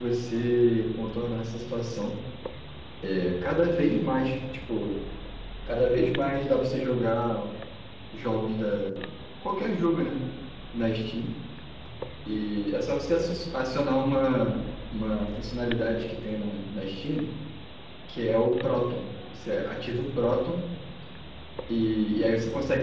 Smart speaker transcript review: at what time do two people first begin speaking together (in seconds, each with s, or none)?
none